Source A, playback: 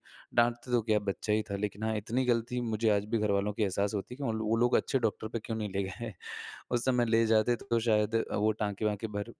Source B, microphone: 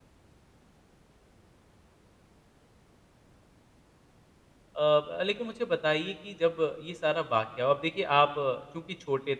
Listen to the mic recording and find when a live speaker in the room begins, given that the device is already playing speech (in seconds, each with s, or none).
4.8 s